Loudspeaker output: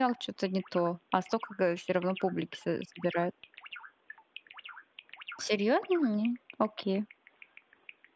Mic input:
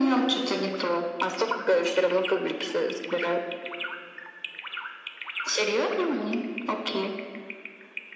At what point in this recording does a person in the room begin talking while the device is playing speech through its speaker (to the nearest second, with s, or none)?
none